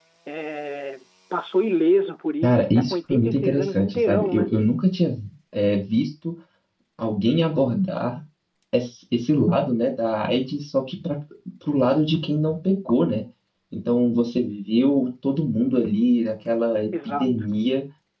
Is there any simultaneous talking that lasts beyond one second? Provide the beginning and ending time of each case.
2.4-4.5

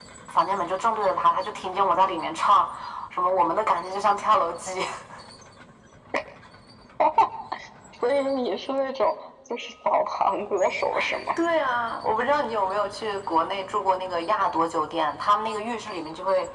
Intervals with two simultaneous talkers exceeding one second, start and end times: none

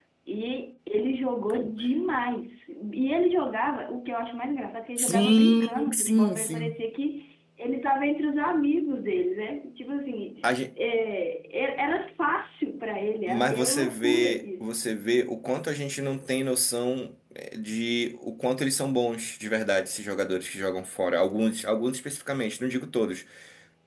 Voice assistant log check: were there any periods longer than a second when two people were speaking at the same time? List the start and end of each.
5.0-6.8, 13.3-14.8

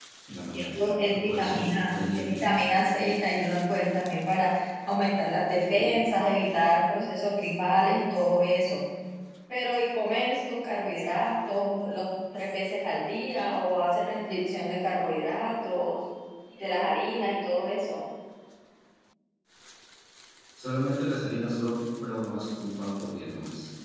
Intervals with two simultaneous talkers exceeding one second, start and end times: 0.5-2.4

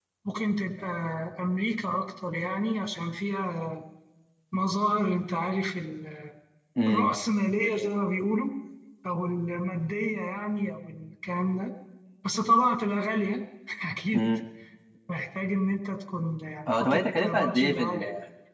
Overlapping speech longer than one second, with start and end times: 16.7-18.0

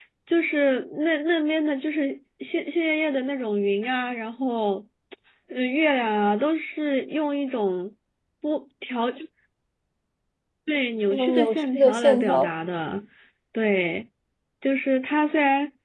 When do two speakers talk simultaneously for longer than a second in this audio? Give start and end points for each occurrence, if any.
11.1-12.5

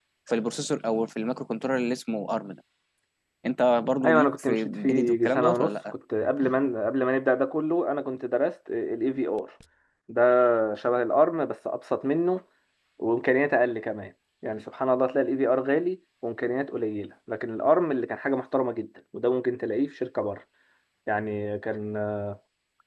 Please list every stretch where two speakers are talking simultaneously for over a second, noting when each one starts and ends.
4.0-5.7

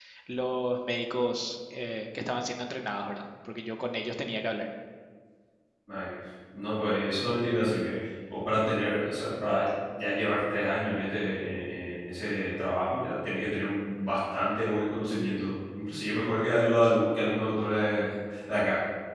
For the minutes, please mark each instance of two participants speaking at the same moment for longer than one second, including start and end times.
none

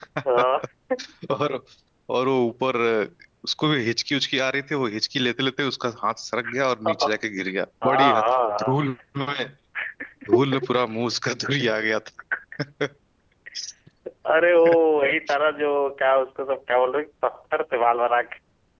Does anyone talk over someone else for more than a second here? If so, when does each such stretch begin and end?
none

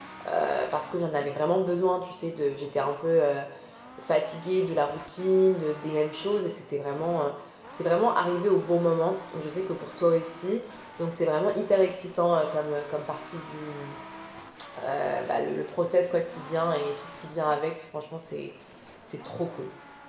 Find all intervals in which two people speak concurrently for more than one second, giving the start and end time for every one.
none

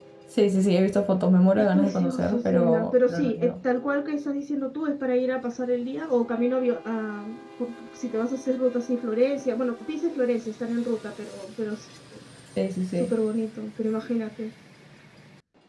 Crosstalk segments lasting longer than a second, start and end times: 1.6-3.6

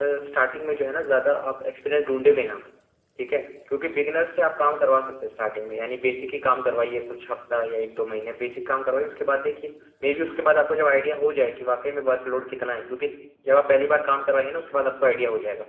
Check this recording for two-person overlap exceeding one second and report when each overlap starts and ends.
none

